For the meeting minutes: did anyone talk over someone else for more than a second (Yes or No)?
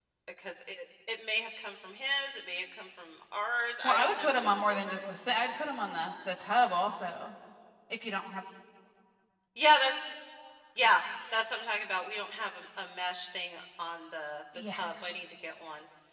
Yes